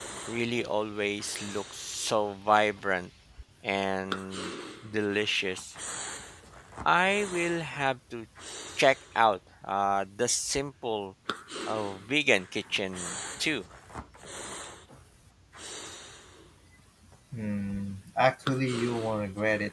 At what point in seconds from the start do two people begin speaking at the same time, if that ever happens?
none

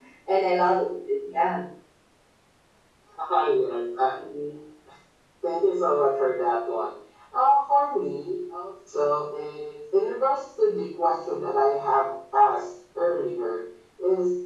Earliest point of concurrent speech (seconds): none

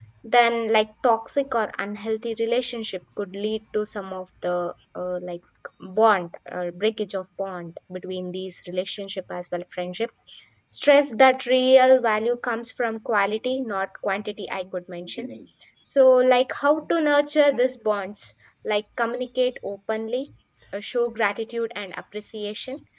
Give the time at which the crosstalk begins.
none

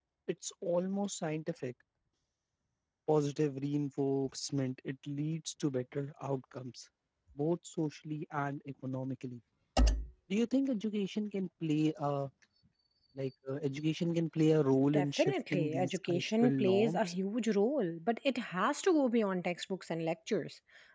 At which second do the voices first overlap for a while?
14.9 s

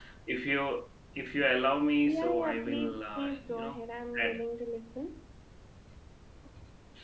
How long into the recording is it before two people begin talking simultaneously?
2.0 s

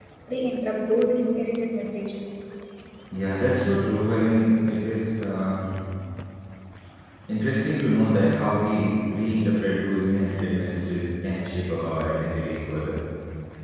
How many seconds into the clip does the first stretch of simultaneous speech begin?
none

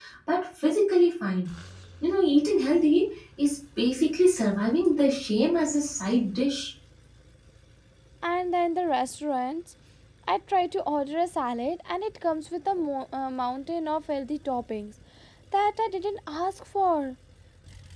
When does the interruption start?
none

